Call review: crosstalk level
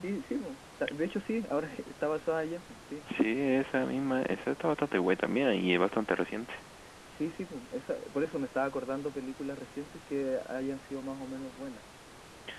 none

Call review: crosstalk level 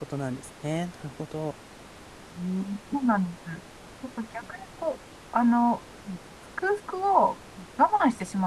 none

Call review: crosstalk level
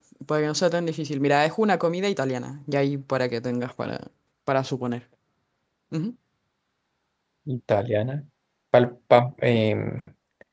none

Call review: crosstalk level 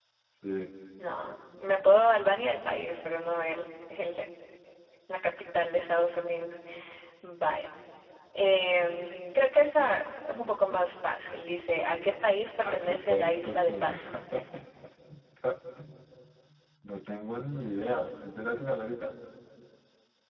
present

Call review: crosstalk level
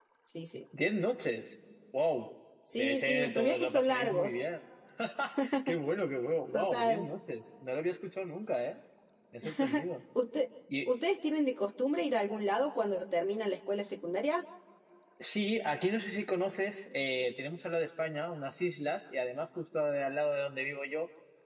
present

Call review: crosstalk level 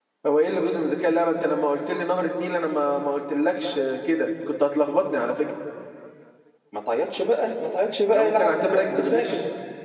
present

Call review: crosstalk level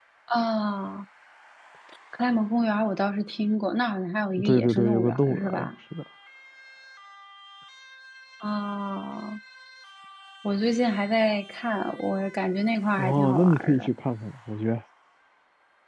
present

